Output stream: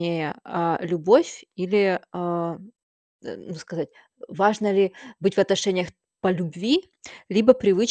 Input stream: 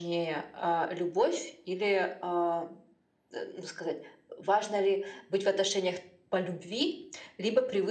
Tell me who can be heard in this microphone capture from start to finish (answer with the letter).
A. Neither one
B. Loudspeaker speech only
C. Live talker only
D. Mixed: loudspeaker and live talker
B